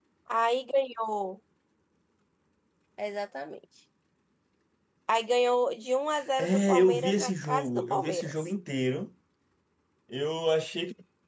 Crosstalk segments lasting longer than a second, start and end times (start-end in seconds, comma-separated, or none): 6.4-8.5